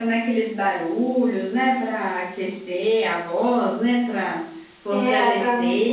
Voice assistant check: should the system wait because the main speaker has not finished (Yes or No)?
No